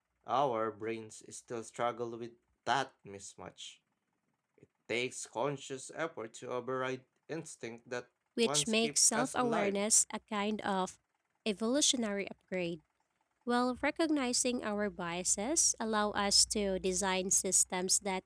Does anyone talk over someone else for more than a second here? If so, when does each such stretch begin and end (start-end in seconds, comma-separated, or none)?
8.4-9.8